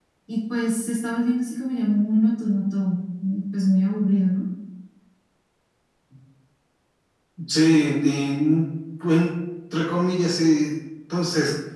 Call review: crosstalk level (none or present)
none